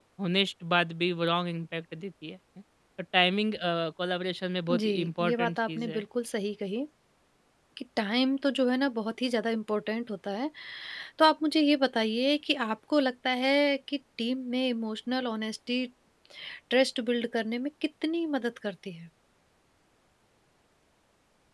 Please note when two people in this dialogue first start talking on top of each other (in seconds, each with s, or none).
4.7 s